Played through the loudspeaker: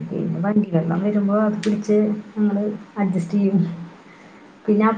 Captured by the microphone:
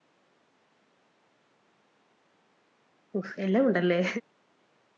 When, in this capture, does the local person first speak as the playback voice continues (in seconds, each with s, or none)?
3.2 s